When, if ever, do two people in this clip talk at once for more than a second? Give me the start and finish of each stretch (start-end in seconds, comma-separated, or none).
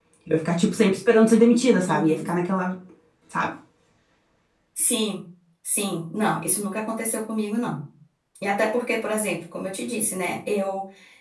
none